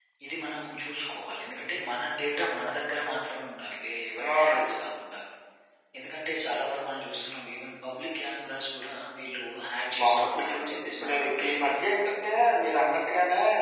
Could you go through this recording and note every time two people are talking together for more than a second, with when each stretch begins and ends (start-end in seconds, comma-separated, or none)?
10.0-11.8